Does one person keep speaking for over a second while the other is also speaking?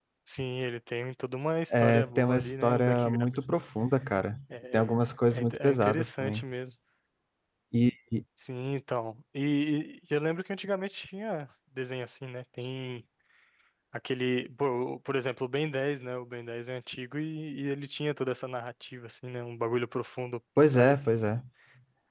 Yes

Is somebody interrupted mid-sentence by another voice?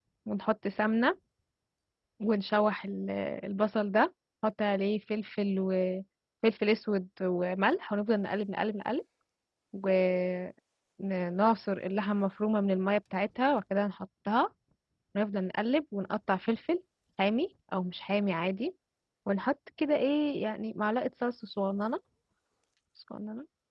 No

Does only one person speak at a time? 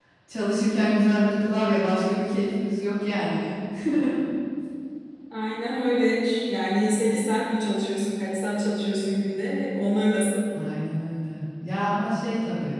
Yes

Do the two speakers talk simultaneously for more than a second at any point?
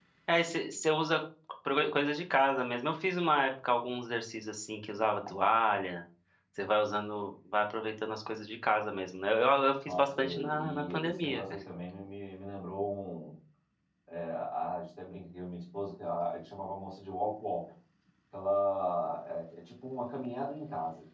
Yes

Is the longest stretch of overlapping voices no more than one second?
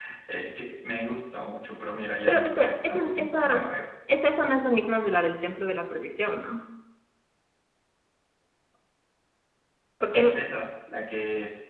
No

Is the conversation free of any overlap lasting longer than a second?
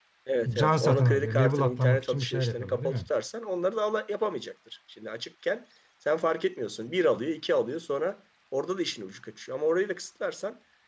No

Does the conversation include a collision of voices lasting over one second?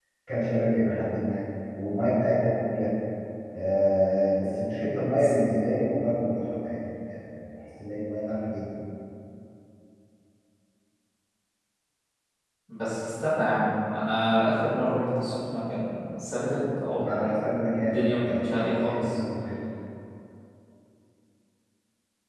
Yes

